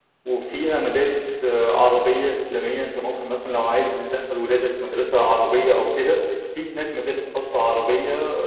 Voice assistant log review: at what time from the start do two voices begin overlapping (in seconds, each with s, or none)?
none